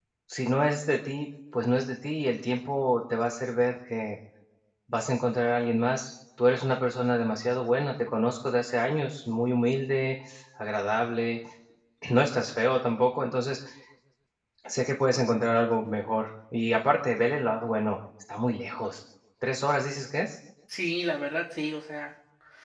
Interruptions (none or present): none